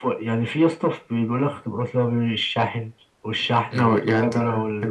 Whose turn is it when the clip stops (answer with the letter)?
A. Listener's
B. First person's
A